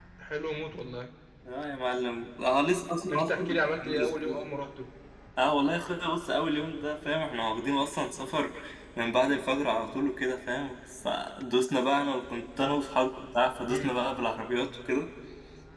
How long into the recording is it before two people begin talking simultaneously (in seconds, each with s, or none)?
3.1 s